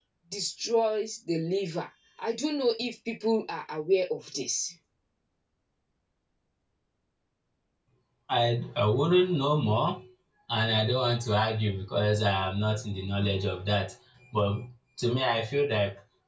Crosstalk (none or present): none